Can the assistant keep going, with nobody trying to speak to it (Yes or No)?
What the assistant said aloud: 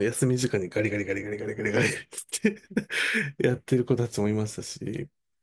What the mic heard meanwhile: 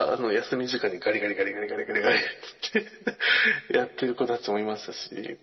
Yes